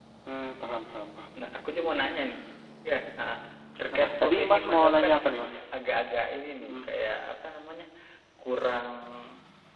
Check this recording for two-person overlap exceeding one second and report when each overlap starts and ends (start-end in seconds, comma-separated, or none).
3.8-5.1